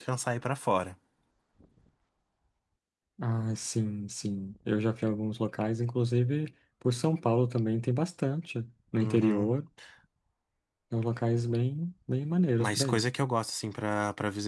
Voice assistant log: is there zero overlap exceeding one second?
Yes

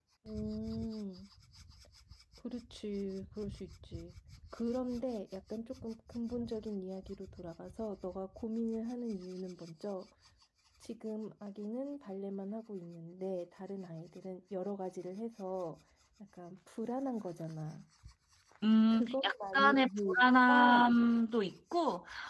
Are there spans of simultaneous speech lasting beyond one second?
Yes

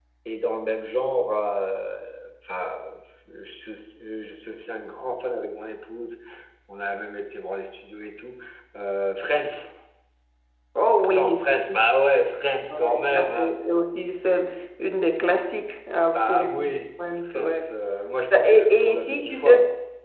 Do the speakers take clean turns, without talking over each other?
No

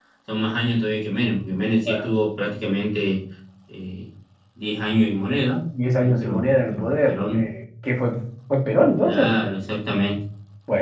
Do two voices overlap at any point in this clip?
Yes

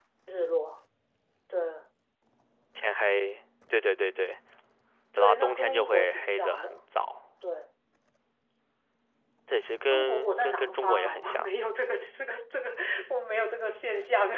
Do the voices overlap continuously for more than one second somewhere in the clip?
Yes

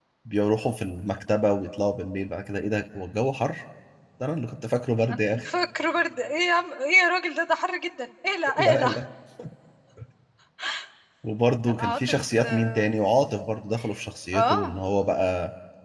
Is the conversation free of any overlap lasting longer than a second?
No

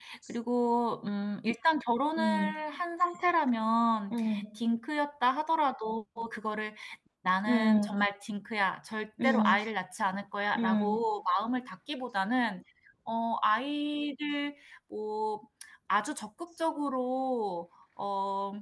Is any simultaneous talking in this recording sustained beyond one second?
No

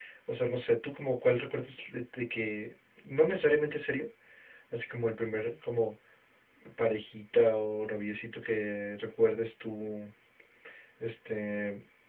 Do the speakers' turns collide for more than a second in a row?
No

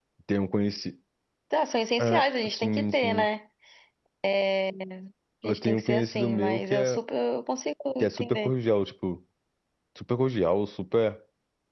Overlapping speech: Yes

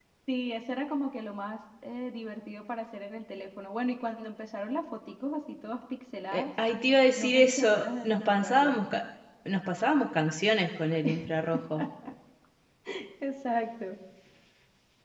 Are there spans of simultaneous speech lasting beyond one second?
Yes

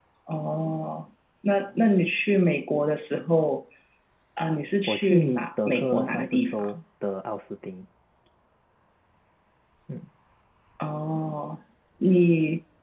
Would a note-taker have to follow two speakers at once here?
Yes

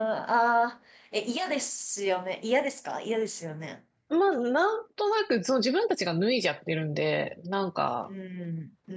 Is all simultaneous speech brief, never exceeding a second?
Yes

